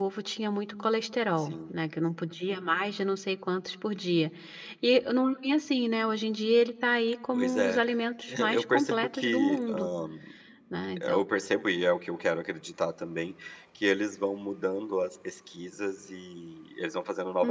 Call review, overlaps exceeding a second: present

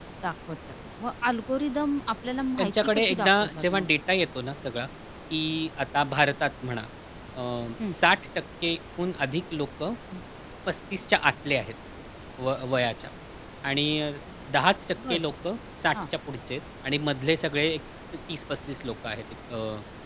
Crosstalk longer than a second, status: present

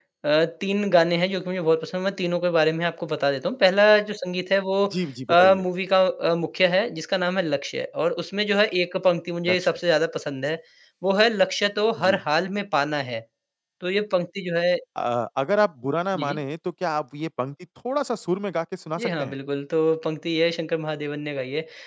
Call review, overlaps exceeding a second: none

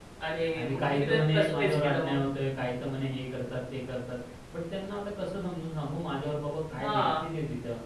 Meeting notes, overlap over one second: present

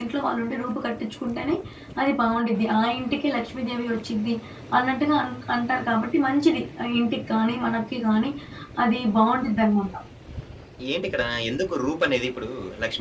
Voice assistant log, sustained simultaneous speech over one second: none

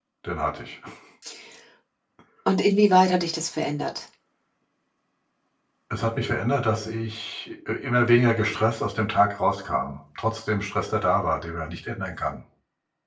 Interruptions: none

